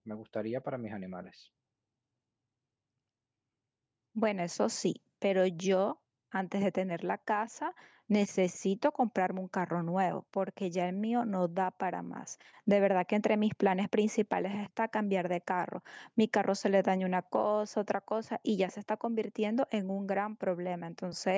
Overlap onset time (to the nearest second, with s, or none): none